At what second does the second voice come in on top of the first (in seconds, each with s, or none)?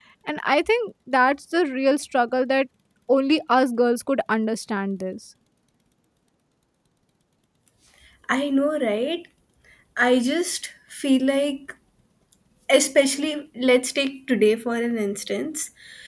none